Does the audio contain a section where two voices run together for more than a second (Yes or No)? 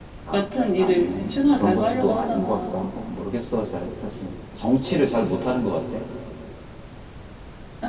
Yes